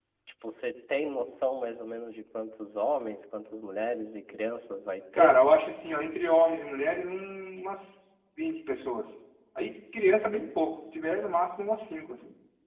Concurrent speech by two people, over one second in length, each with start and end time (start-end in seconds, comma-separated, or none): none